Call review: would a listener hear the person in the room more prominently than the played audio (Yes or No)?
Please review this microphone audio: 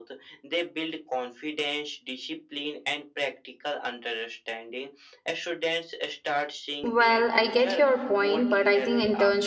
Yes